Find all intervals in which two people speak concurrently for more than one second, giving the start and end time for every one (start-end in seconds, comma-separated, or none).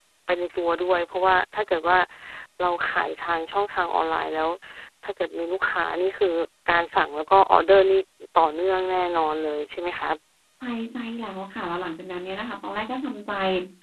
none